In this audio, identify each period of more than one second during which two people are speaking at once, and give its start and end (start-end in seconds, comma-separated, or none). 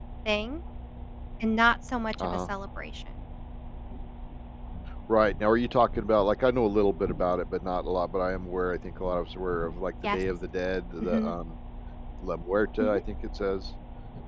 none